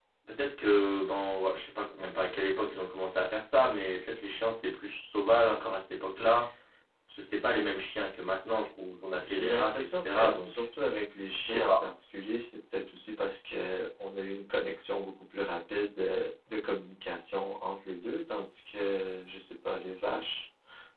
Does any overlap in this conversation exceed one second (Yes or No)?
Yes